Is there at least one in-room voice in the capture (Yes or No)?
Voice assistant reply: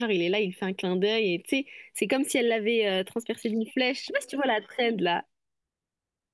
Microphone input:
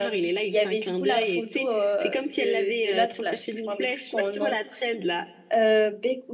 Yes